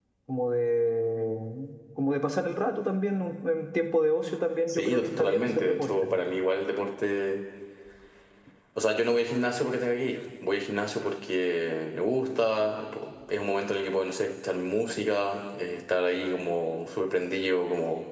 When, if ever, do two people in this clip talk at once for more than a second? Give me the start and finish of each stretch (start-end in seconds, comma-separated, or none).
4.7-6.1